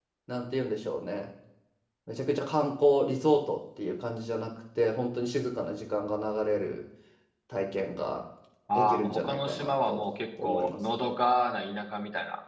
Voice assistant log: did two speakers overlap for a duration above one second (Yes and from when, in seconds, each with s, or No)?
Yes, from 8.7 s